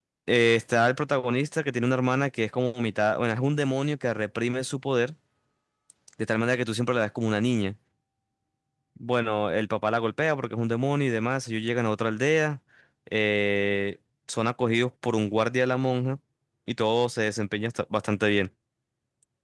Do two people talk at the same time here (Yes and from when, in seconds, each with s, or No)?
No